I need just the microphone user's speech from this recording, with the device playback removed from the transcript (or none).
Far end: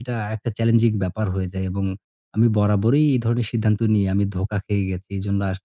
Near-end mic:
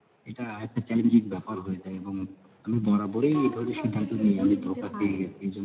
এটা কিন্তু আপনি আসলে বলে নিতে পারেন।